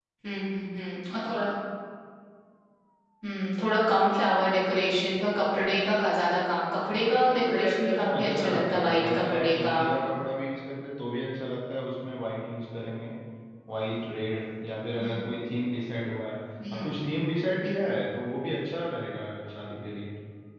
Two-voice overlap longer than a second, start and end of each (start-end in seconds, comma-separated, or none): 7.3-9.8